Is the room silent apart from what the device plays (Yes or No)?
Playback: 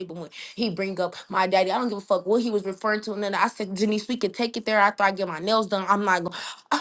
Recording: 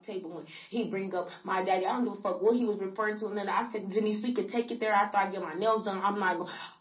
Yes